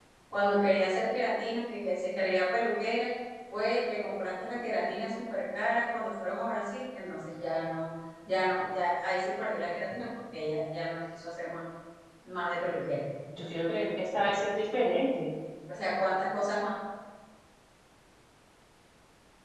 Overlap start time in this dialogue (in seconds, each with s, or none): none